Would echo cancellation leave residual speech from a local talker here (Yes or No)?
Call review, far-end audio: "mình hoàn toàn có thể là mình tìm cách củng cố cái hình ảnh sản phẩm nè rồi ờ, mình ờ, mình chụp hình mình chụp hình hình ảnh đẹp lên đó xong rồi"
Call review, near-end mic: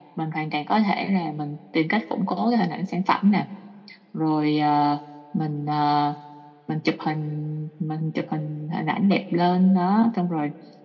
No